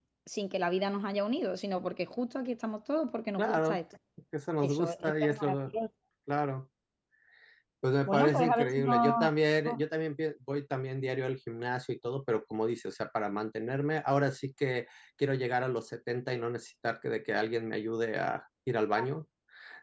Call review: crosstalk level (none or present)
present